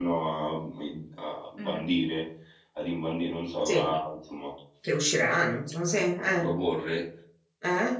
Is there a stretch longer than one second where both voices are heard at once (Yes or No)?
No